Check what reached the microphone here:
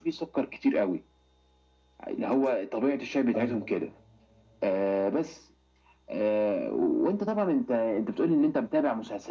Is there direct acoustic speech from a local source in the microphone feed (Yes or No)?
Yes